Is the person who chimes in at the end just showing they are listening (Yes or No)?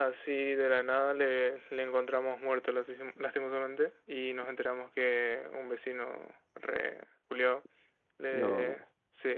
Yes